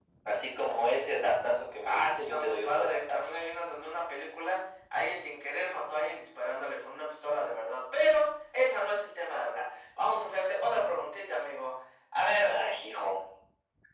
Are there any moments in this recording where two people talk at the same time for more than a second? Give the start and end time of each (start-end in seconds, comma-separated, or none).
1.8-3.4